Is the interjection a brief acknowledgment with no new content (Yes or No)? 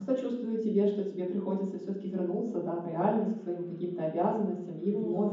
Yes